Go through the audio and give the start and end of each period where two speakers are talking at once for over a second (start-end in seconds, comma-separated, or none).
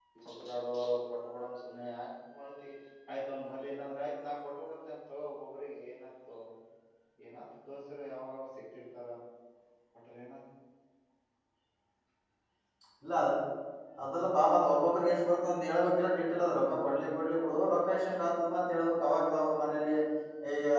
none